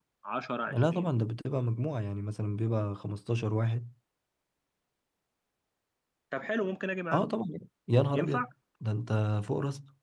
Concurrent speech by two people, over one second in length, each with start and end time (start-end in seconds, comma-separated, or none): none